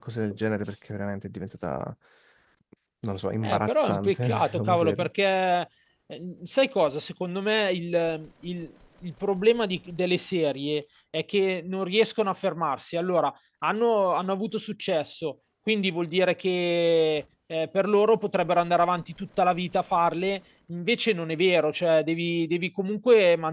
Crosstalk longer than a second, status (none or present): present